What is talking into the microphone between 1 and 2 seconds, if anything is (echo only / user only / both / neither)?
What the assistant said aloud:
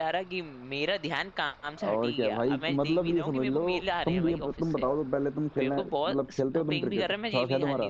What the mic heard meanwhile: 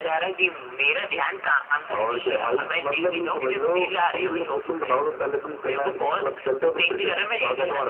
echo only